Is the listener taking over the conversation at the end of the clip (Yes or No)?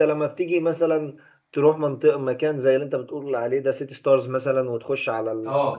No